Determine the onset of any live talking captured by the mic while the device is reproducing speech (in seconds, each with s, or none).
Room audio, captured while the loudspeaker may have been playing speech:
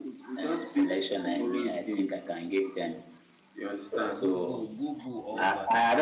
4.0 s